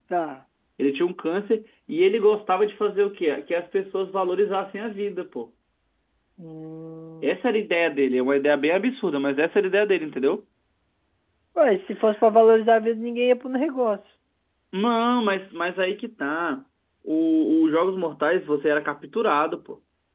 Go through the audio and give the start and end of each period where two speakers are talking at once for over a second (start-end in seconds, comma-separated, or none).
none